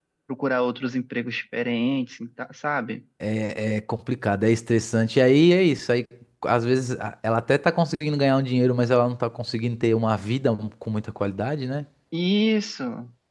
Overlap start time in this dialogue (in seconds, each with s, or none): none